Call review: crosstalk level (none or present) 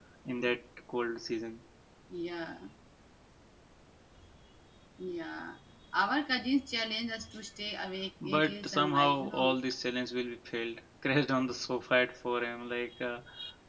present